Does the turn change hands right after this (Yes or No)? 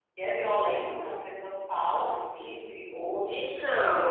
Yes